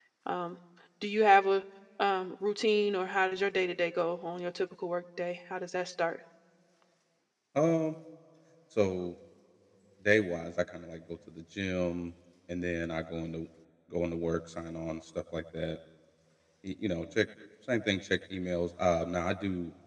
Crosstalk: none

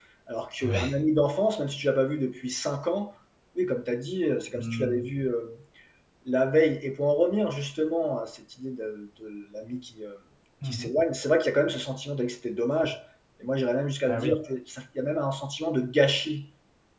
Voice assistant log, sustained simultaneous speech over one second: none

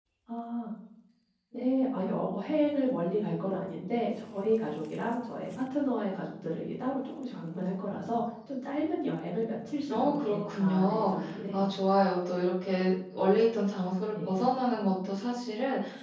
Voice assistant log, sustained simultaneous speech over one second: present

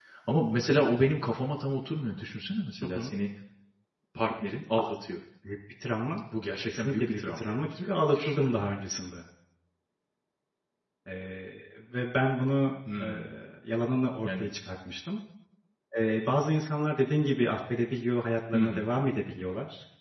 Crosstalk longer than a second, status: present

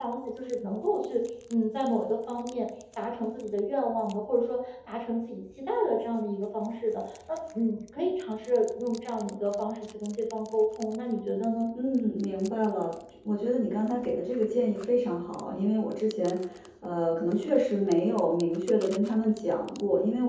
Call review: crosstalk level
none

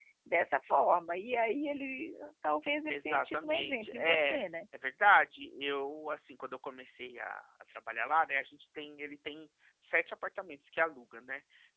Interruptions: present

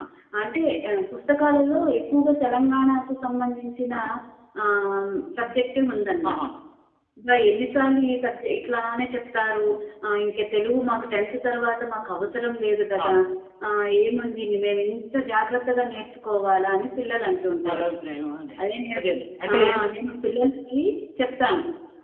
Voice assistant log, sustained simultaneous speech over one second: none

